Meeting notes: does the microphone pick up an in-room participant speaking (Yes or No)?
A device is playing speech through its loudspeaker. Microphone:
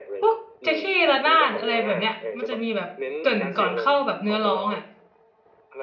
Yes